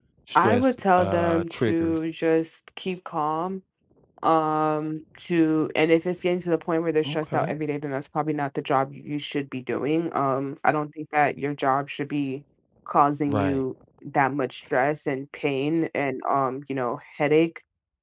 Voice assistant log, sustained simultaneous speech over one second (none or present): present